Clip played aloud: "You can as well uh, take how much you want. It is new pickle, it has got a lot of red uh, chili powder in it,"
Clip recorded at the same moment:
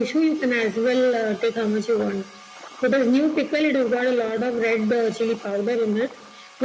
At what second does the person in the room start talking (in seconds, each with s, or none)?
none